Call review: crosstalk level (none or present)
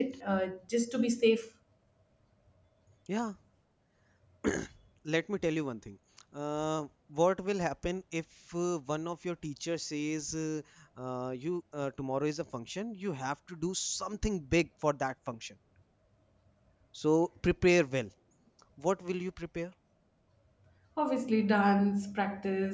none